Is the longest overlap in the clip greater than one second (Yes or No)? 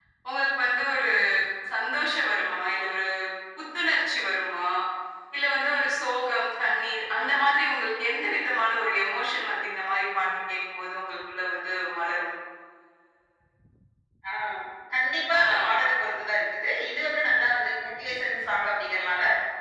No